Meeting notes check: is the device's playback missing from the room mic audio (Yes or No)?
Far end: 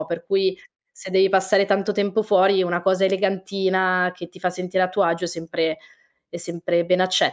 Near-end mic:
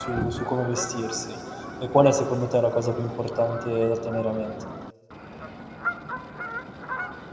Yes